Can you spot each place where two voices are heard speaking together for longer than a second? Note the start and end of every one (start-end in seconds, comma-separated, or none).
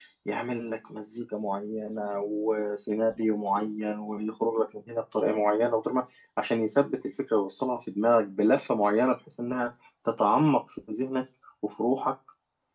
none